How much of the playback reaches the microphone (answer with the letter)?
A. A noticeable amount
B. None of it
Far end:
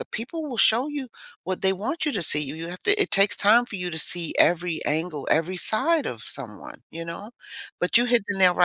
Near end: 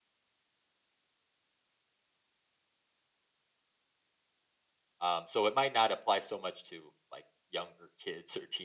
B